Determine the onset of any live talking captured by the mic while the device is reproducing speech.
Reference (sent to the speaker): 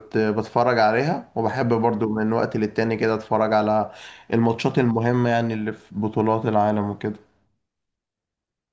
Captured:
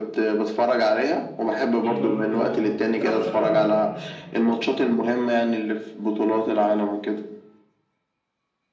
1.8 s

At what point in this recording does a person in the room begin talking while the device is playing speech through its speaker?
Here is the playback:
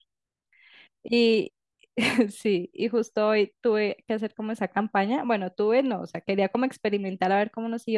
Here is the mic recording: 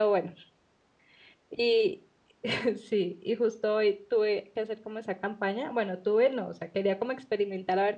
none

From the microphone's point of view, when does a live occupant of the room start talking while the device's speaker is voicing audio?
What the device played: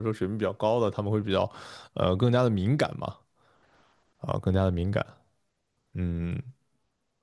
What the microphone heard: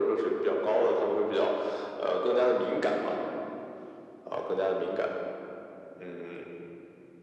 none

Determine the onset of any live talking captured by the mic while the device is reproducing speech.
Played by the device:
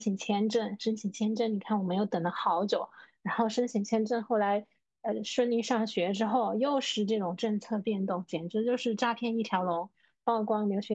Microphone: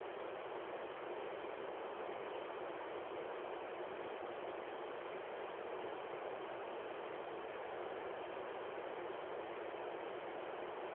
none

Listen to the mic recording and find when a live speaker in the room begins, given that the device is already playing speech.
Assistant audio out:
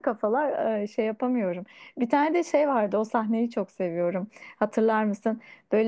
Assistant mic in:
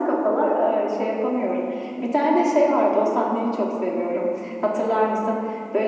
none

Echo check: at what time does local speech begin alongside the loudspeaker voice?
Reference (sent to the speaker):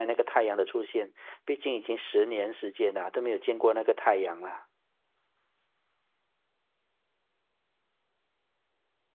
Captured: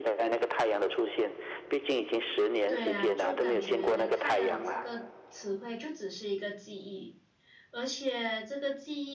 2.7 s

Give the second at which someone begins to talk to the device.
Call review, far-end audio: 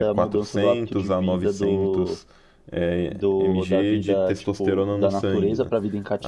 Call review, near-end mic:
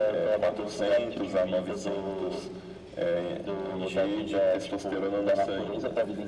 none

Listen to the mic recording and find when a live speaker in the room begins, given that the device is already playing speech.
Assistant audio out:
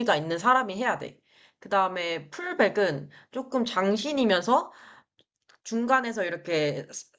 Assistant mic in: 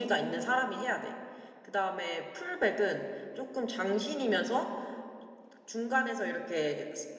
none

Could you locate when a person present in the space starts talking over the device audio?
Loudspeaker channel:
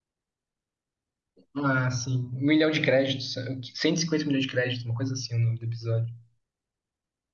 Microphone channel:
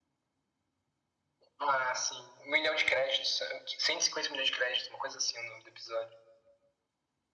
none

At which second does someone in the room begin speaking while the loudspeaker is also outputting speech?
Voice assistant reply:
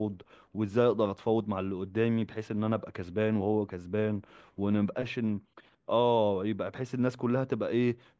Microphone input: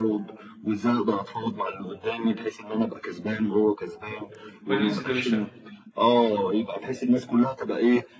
4.7 s

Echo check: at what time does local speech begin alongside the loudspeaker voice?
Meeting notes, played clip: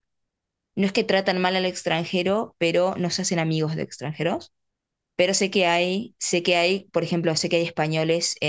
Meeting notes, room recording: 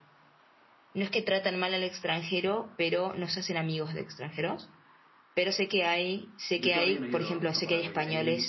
6.6 s

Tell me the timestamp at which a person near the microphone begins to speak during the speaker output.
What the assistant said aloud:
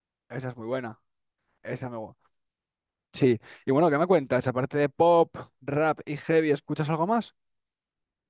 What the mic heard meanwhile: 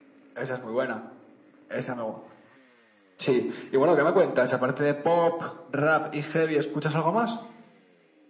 none

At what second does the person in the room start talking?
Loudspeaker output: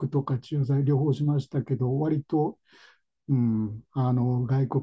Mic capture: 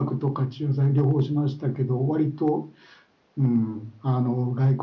none

